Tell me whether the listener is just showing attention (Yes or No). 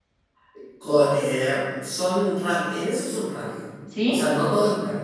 Yes